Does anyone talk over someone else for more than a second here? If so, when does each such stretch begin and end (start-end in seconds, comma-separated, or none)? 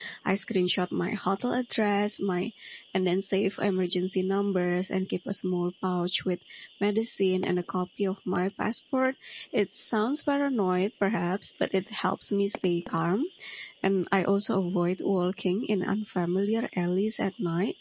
none